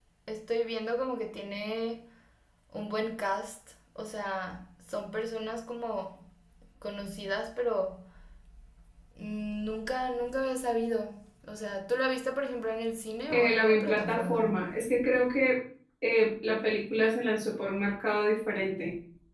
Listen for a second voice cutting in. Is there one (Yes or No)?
Yes